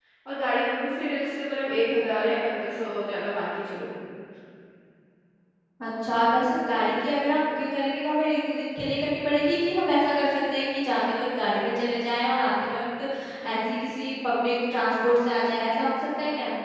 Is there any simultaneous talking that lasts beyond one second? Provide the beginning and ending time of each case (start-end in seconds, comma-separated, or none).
none